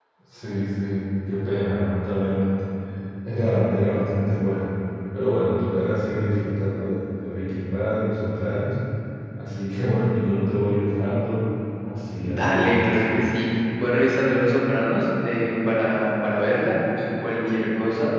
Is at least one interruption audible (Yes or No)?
Yes